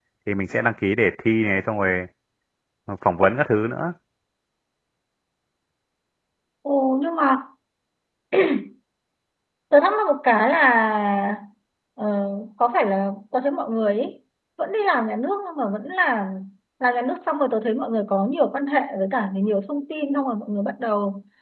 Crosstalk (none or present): none